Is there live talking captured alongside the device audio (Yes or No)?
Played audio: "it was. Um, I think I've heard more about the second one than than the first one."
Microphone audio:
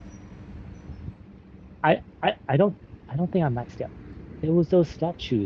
Yes